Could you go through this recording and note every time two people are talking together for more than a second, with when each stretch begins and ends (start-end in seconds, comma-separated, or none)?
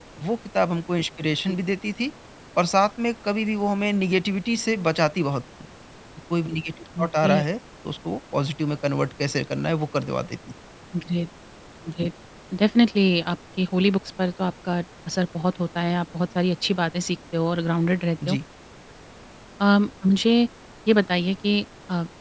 none